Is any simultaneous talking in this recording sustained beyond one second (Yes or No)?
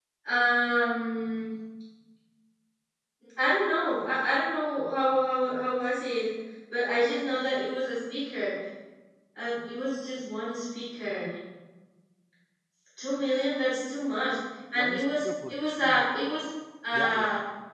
Yes